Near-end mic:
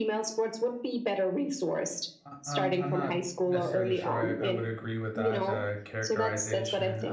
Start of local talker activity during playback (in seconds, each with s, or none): 2.2 s